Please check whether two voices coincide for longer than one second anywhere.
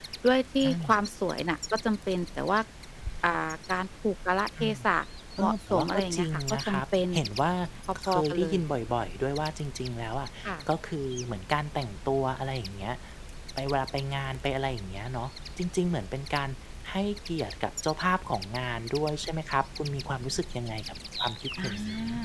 Yes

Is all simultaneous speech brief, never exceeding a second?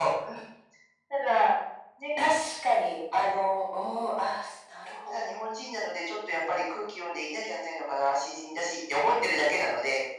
Yes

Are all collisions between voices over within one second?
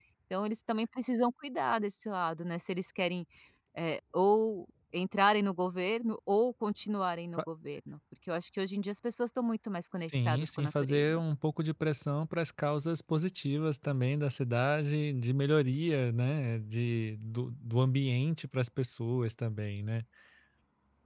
No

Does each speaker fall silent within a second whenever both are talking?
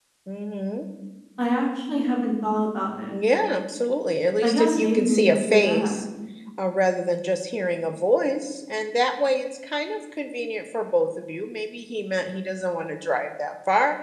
No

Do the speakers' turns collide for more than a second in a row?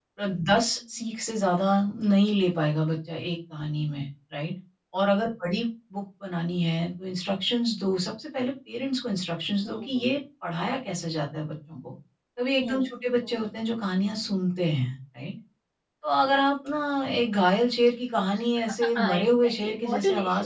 Yes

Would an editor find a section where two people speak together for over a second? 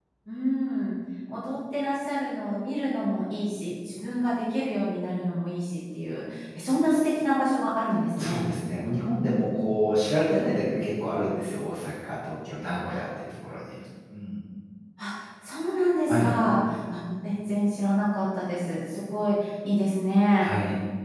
No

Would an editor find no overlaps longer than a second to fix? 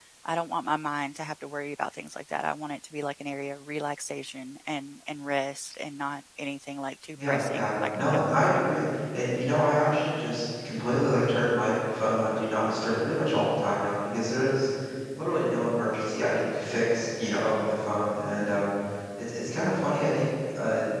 No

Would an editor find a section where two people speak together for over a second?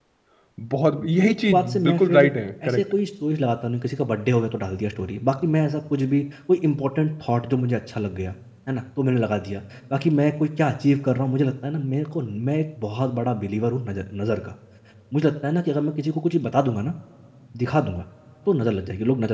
Yes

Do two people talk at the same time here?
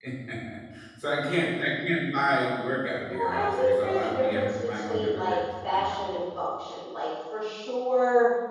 Yes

